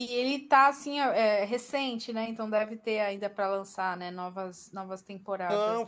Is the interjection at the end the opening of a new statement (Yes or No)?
Yes